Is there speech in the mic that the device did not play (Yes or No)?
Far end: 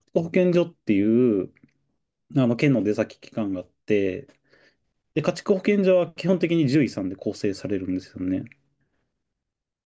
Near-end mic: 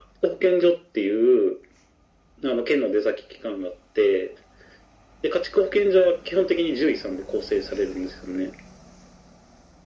No